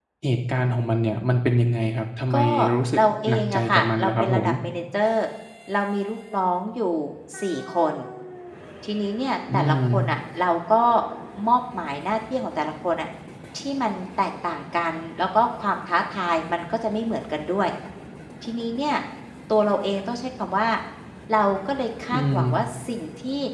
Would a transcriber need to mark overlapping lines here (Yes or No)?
Yes